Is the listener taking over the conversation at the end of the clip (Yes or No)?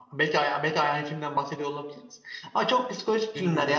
No